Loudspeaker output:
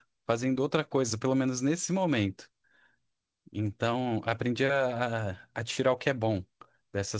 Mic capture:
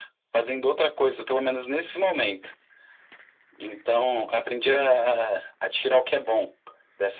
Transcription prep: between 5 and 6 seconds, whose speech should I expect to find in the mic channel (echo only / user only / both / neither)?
echo only